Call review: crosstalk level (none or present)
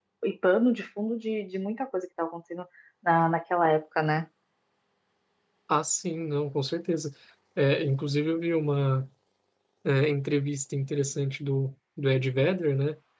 none